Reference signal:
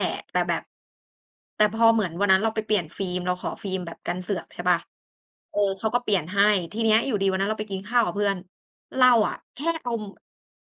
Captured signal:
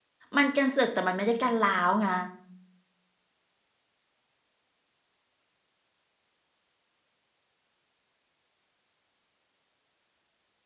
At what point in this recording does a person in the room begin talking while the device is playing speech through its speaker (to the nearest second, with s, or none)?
0 s